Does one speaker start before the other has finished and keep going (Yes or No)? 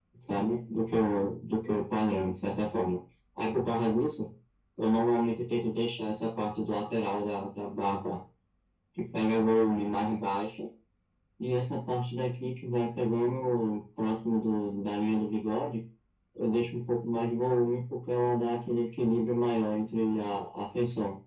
No